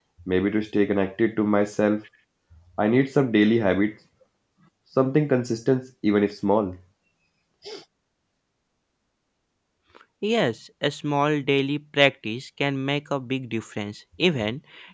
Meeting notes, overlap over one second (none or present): none